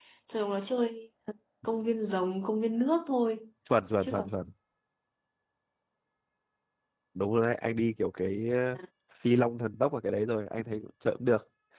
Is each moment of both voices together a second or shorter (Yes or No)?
Yes